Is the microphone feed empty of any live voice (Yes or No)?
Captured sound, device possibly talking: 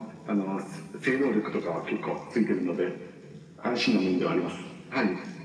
Yes